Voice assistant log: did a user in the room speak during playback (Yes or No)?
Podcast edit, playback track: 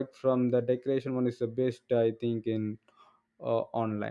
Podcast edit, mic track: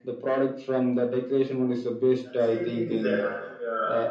Yes